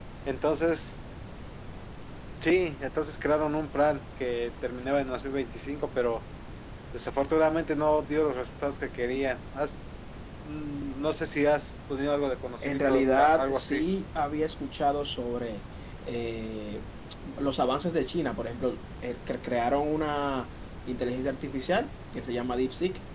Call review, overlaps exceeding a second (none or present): present